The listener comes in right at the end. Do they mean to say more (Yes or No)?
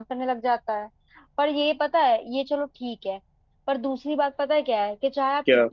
No